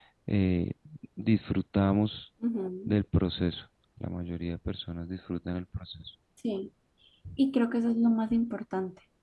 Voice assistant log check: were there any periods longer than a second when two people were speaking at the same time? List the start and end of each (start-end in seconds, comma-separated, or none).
none